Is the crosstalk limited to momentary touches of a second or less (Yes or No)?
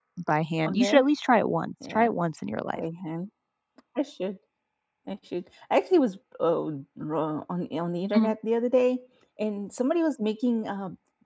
Yes